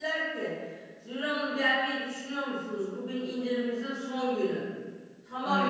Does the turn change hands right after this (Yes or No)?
No